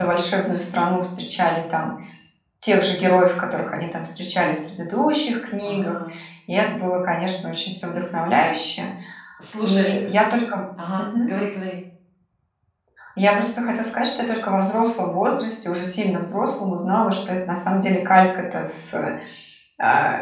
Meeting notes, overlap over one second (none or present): none